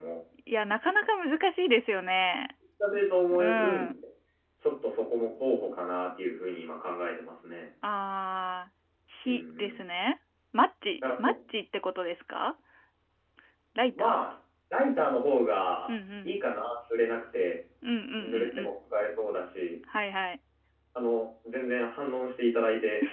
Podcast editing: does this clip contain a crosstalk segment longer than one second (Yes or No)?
No